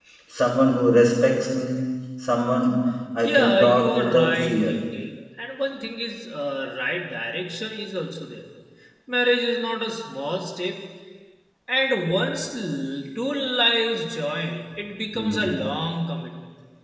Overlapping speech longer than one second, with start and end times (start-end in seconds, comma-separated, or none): 3.2-4.7